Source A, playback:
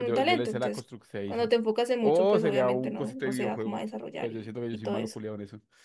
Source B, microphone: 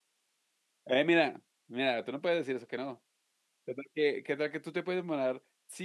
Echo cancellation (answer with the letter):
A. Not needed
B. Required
A